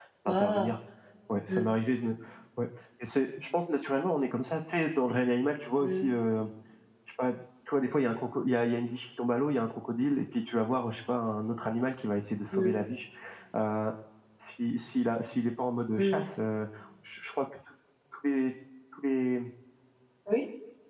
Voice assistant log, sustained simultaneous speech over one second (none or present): none